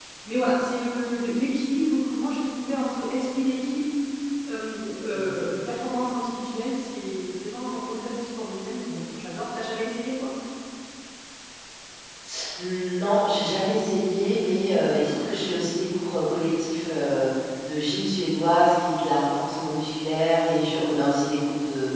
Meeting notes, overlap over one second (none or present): none